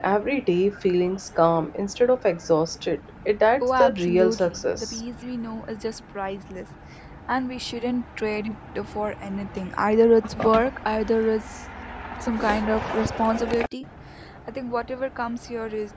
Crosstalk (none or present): present